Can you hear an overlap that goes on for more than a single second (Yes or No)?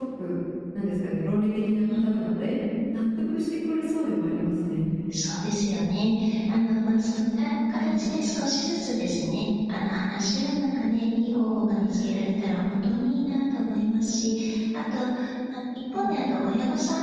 No